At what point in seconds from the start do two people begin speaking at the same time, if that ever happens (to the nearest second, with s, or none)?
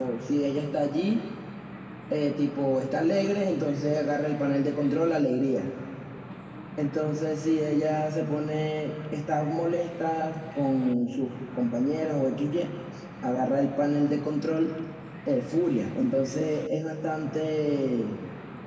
none